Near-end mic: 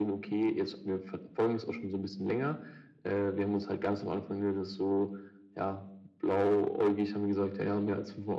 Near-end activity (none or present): none